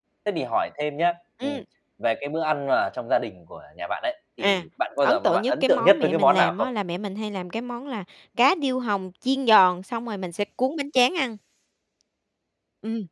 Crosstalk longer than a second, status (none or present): present